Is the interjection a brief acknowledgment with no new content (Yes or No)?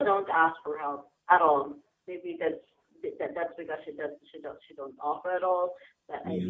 Yes